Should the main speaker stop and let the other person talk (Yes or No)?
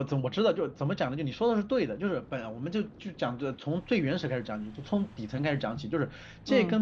No